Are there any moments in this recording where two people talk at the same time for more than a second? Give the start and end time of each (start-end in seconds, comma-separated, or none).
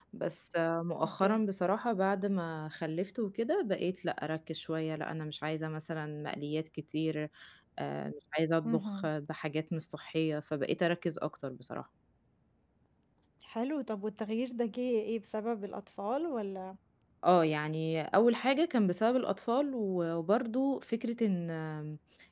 none